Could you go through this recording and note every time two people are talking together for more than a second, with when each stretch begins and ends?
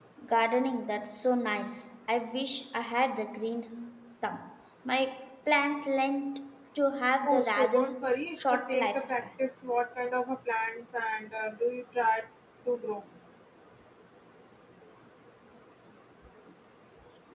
7.2-9.3

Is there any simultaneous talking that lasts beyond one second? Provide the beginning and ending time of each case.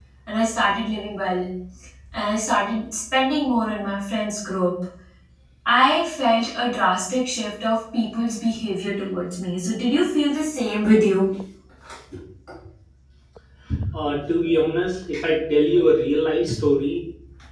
none

